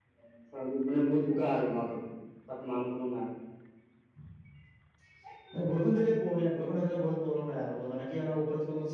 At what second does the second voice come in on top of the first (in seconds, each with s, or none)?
none